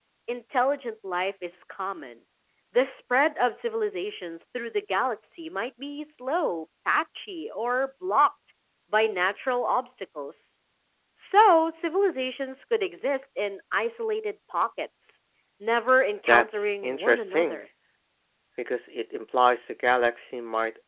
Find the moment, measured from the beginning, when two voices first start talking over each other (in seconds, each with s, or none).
16.3 s